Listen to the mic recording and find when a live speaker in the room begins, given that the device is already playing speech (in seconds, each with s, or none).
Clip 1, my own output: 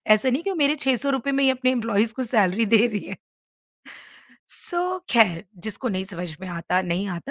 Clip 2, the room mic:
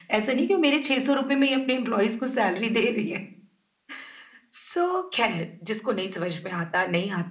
none